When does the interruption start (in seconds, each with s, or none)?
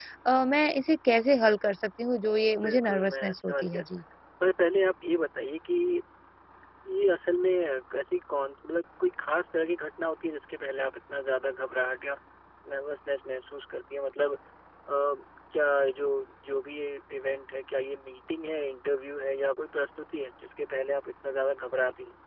2.6 s